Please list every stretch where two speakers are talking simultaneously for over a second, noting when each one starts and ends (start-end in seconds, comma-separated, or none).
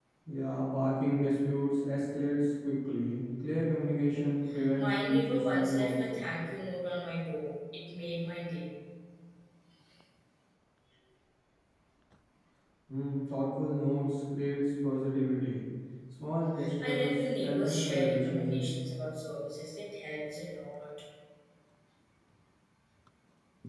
4.8-6.2, 16.8-18.6